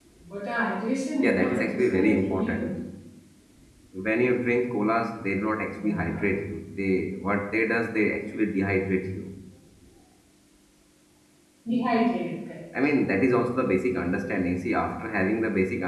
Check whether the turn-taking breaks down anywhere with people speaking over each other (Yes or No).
Yes